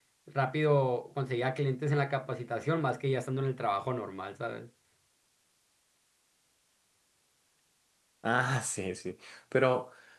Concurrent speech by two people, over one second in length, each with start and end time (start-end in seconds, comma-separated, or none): none